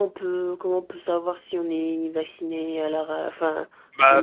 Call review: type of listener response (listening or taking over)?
taking over